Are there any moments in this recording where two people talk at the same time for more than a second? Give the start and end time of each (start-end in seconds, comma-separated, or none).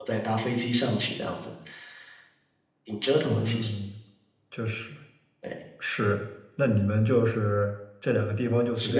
none